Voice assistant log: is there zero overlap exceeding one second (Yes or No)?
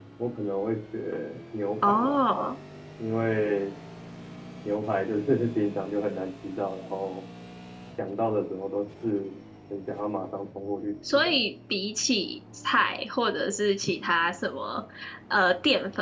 Yes